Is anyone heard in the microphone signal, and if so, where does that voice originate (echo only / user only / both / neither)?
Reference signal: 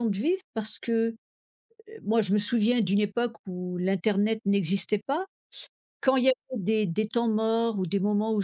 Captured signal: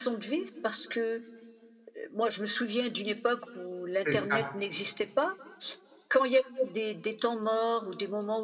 both